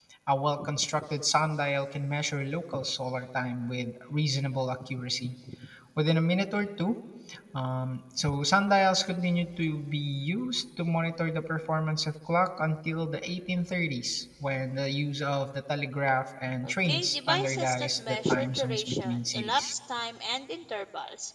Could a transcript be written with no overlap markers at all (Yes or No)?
No